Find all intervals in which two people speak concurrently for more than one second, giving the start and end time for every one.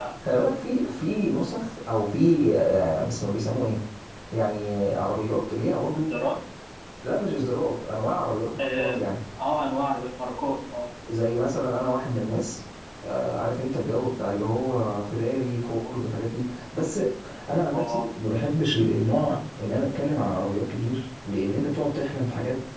none

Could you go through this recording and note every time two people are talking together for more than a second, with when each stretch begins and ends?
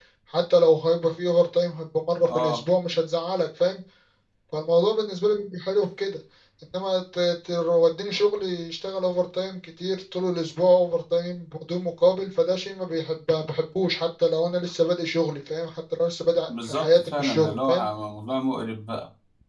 16.6-17.9

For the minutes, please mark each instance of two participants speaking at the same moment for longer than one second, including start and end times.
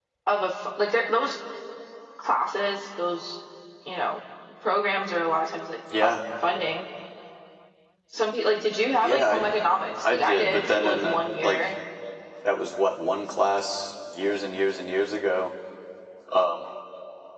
10.1-11.7

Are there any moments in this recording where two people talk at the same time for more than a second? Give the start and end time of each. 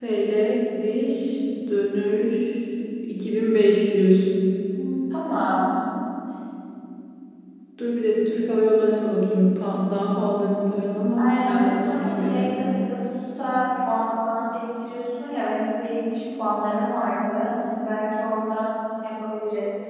11.2-12.5

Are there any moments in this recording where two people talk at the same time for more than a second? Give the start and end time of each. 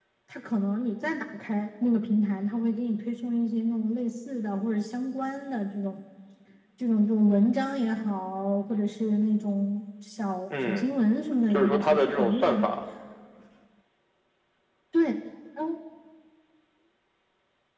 11.5-12.7

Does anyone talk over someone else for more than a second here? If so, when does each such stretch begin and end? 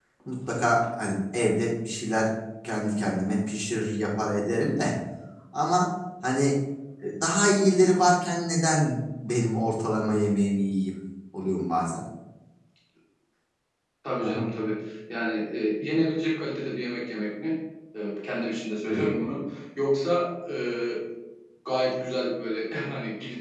none

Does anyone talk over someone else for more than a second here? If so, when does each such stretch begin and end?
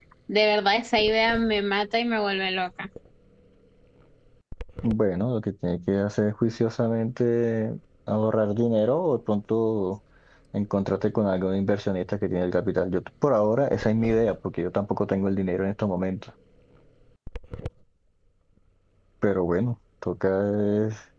none

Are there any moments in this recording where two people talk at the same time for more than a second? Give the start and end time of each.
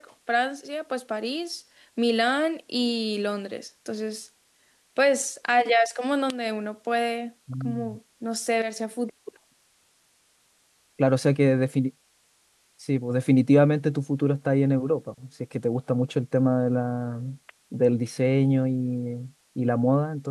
none

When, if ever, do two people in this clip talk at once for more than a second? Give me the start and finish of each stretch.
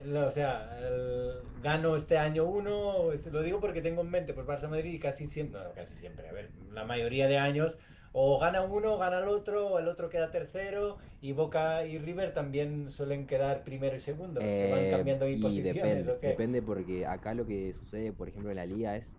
14.4-16.4

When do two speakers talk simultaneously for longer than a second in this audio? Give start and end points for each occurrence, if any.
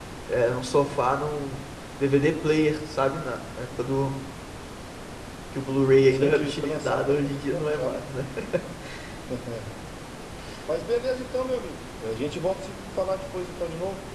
6.1-8.0

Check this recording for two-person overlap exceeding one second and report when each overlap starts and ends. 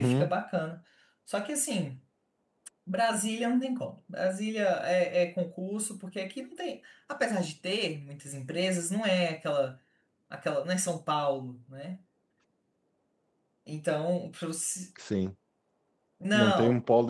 none

